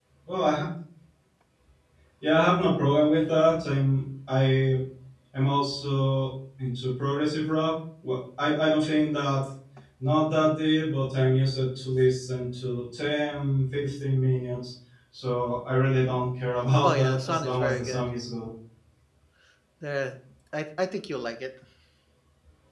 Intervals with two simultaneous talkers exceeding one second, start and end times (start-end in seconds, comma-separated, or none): 16.8-18.1